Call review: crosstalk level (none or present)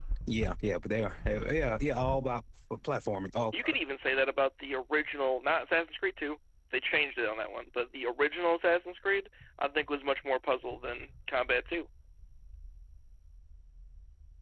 none